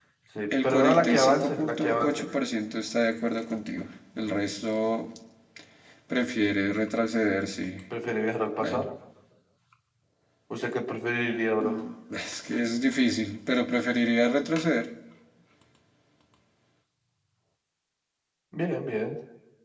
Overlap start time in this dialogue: 0.6 s

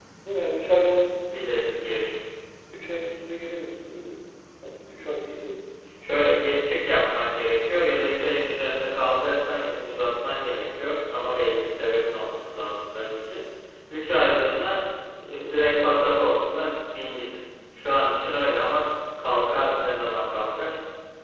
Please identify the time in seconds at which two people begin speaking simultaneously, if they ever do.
none

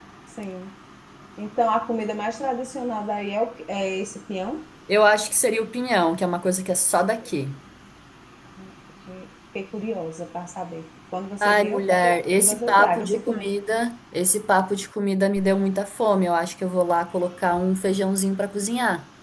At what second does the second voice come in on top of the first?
11.4 s

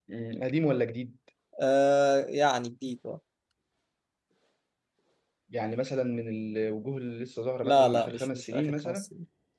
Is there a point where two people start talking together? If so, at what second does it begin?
7.6 s

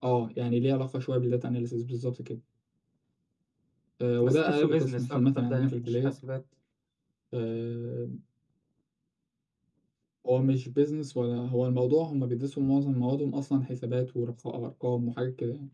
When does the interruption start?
4.2 s

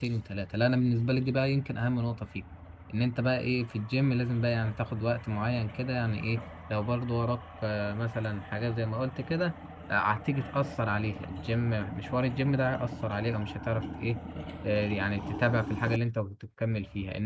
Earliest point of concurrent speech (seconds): none

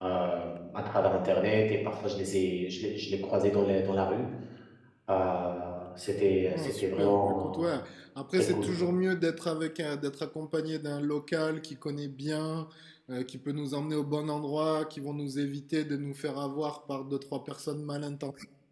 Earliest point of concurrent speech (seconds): 6.5 s

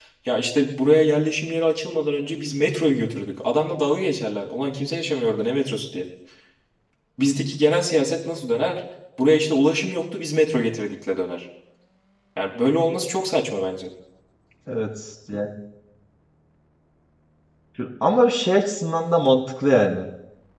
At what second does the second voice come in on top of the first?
none

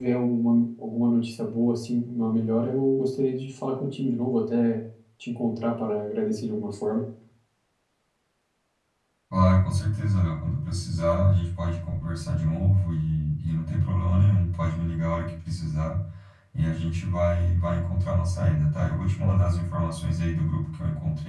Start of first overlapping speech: none

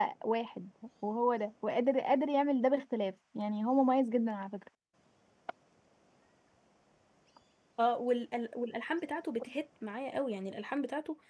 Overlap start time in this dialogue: none

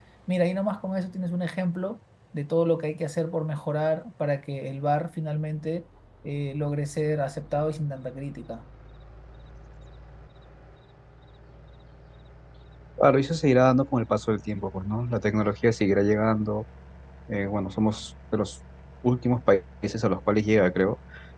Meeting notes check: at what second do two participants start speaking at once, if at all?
none

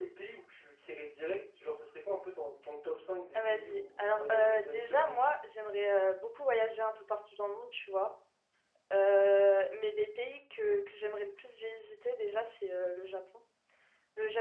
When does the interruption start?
3.3 s

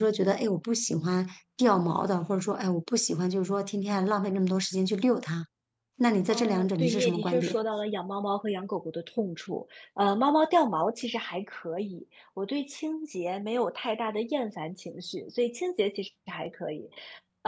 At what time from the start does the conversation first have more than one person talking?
6.3 s

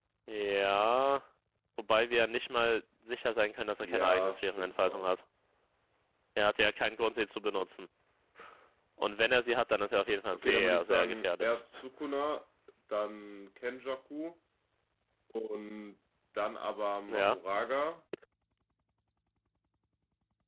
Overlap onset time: 3.8 s

